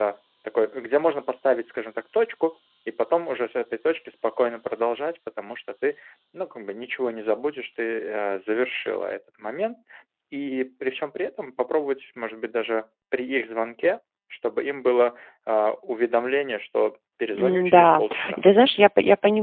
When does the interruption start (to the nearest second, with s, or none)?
17 s